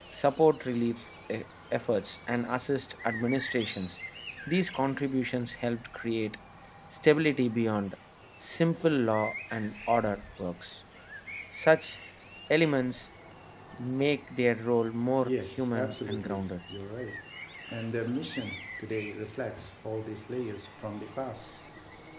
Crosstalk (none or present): present